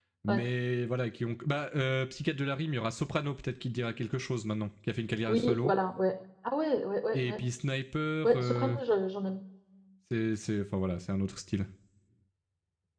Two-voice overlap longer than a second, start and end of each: none

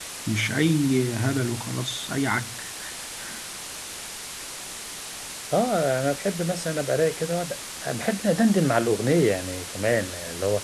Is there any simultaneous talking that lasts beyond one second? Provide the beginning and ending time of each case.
none

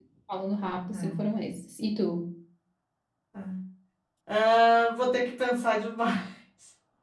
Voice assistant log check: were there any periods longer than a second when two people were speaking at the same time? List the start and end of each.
none

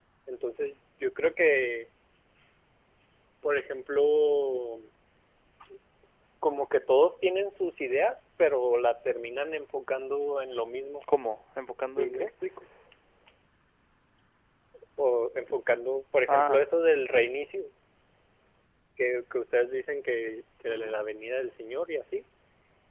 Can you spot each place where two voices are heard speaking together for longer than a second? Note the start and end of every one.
none

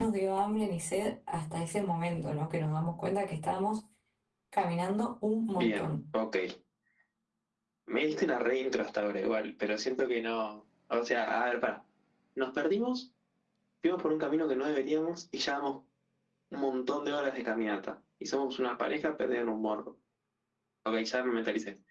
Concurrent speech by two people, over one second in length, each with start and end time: none

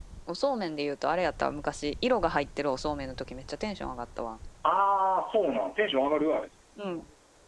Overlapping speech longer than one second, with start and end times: none

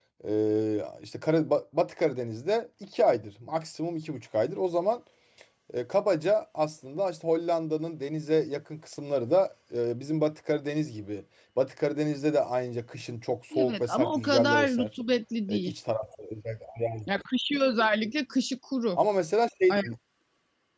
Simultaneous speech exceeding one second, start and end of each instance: 13.6-14.9

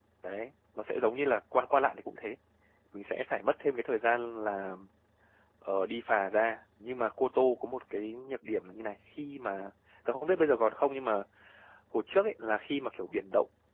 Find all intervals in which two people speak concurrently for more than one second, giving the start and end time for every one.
none

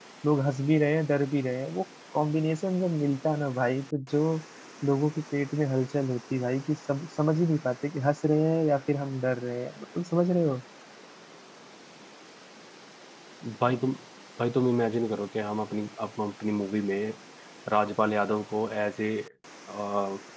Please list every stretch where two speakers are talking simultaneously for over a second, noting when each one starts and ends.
none

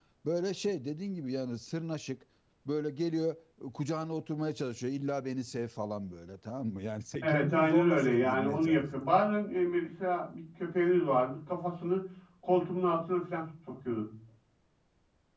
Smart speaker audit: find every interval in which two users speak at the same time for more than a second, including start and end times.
7.2-9.1

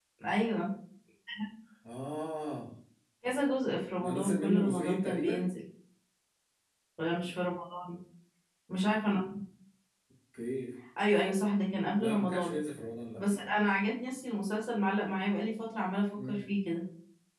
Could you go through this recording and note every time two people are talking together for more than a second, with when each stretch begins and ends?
4.0-5.5

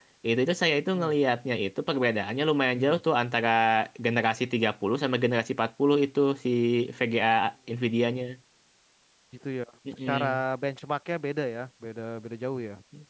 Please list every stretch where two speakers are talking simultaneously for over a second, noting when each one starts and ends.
none

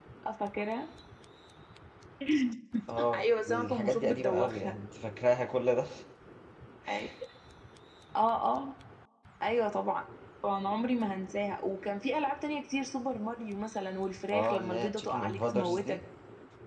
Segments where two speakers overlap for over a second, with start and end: 3.2-4.7, 14.3-16.0

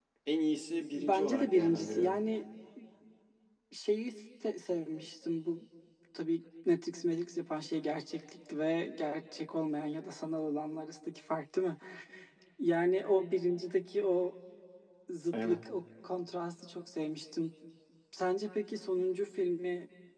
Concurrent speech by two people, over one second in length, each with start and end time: 0.9-2.2

